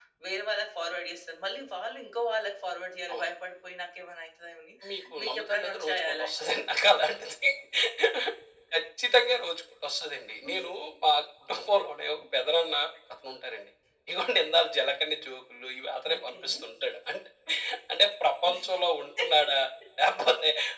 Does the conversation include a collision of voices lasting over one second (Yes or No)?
Yes